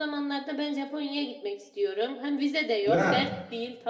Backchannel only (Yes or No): Yes